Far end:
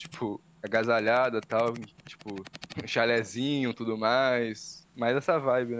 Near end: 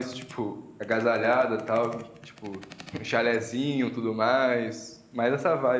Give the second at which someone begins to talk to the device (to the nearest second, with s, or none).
none